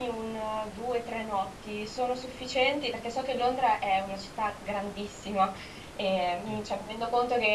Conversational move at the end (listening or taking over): listening